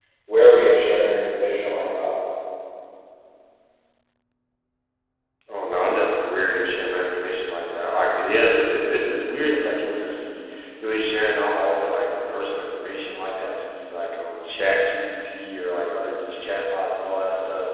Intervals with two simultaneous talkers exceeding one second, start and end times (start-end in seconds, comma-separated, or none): none